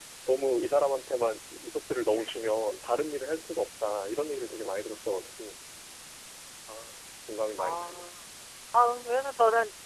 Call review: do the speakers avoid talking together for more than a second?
Yes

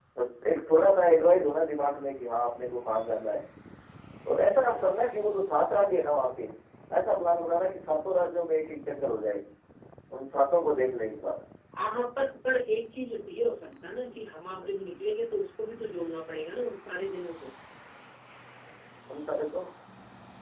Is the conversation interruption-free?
Yes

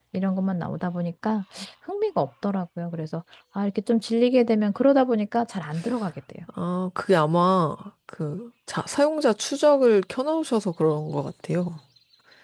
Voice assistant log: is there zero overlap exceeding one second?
Yes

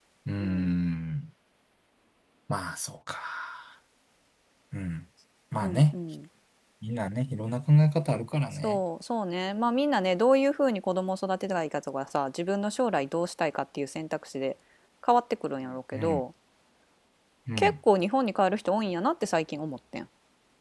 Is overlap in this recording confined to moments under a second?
Yes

